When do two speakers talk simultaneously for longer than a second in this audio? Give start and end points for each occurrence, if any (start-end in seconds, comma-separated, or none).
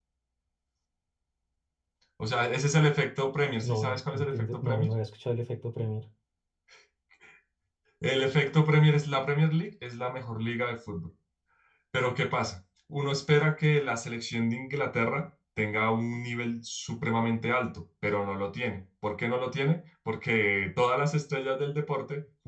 3.6-4.9